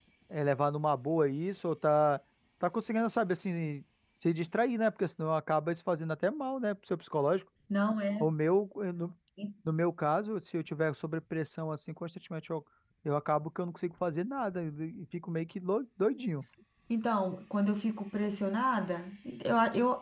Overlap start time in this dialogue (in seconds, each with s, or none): none